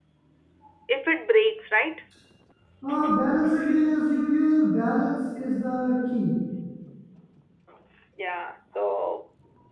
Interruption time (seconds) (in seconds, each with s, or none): none